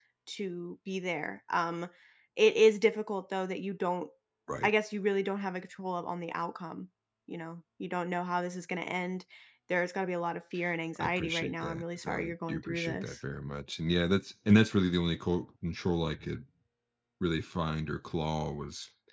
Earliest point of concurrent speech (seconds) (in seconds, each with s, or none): 10.9 s